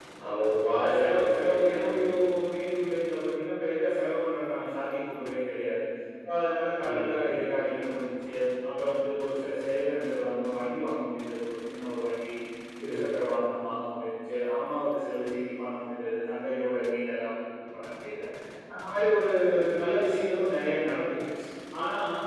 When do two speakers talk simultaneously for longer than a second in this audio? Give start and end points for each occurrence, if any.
0.8-2.0

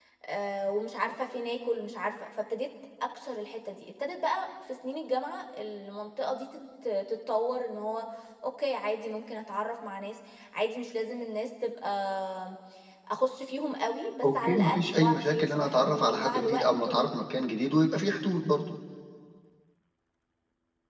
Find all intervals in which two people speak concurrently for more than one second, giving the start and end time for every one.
14.2-17.0

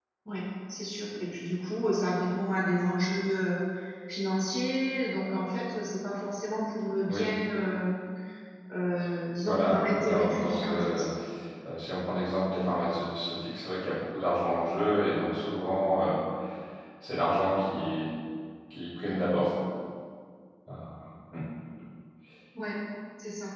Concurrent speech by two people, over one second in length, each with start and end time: 9.4-11.0

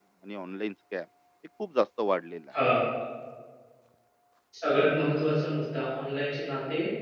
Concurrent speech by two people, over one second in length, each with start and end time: none

